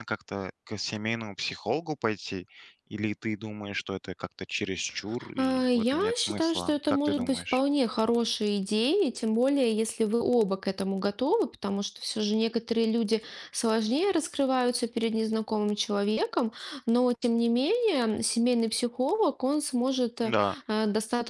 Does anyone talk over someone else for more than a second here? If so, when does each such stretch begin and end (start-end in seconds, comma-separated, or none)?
5.4-7.6